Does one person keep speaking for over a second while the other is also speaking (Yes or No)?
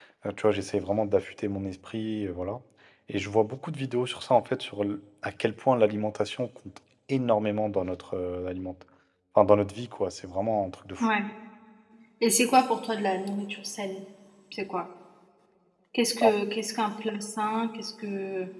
No